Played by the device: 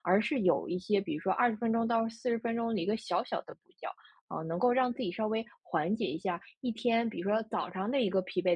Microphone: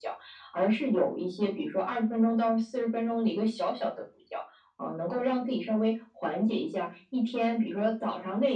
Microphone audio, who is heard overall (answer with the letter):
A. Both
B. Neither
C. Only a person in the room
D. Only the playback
D